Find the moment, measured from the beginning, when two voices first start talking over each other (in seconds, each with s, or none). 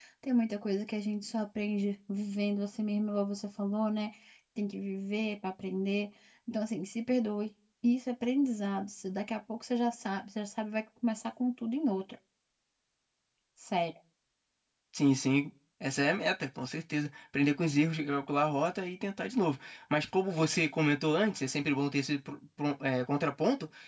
none